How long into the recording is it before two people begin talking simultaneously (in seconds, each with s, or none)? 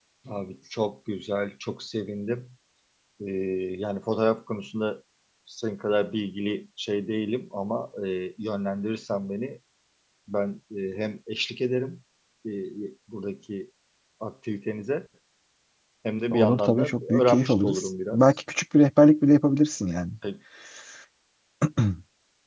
16.3 s